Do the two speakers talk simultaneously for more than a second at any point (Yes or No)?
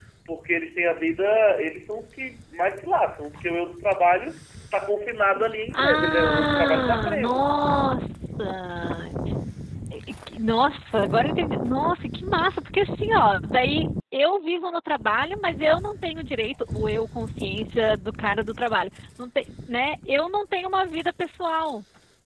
Yes